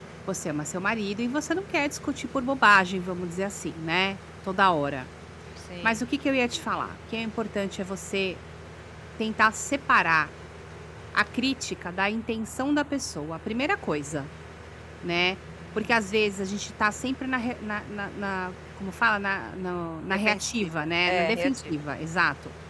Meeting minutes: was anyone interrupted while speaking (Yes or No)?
Yes